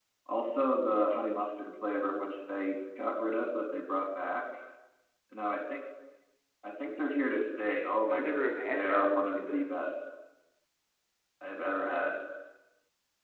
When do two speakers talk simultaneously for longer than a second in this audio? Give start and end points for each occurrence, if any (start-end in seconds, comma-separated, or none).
8.1-9.6